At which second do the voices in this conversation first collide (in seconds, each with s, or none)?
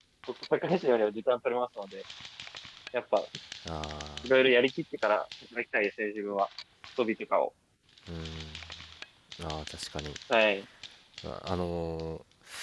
none